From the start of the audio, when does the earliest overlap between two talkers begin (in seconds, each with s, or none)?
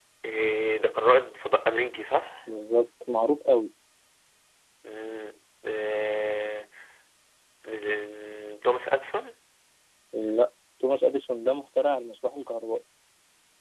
none